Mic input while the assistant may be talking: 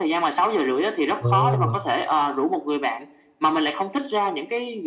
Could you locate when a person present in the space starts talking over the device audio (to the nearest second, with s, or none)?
1 s